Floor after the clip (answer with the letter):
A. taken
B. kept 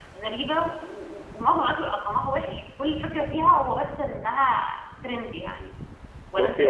A